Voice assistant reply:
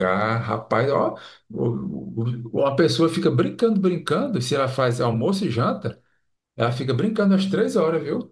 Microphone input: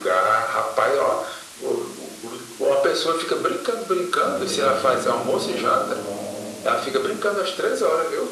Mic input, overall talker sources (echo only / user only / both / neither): both